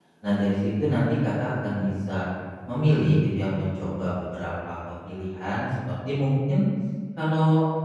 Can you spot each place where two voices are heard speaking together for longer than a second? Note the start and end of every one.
none

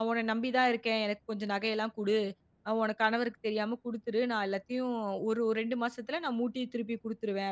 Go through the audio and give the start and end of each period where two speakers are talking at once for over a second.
none

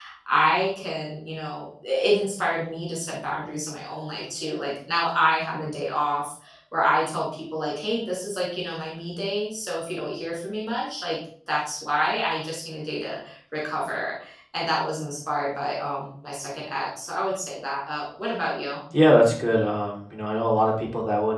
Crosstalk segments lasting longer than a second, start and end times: none

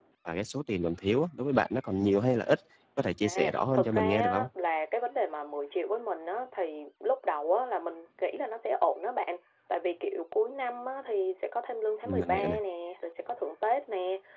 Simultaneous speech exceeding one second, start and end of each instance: 3.2-4.4

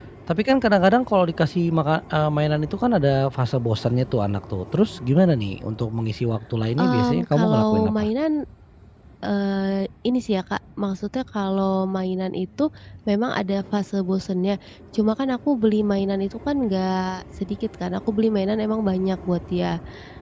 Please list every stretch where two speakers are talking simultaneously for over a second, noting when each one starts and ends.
6.8-8.1

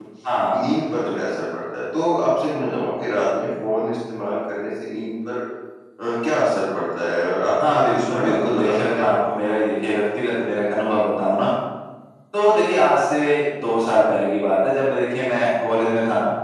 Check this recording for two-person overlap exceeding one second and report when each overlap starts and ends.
7.7-9.1

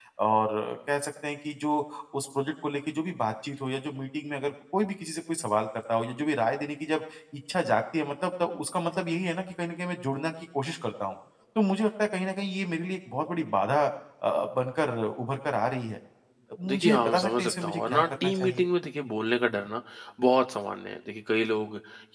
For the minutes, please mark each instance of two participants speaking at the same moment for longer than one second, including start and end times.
16.7-18.7

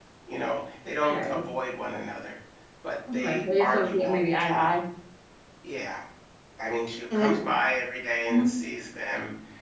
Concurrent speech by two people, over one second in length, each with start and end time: 3.1-4.8

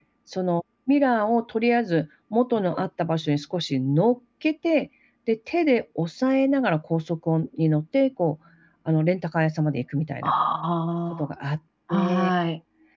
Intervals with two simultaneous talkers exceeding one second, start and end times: none

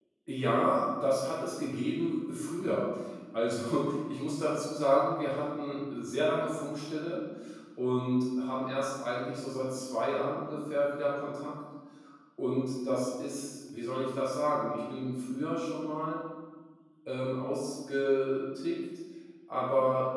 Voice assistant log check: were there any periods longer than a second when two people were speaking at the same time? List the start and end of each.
none

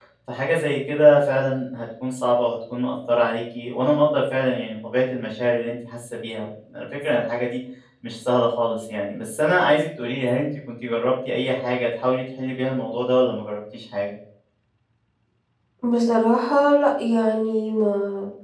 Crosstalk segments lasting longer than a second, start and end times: none

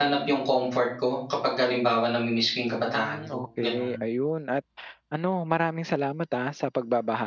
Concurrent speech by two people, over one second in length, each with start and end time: 2.8-4.0

